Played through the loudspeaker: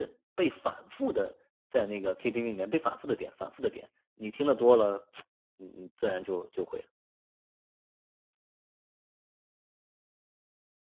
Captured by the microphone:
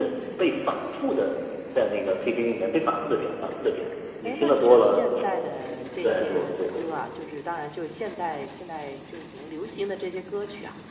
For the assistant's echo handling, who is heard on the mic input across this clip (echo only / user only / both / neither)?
both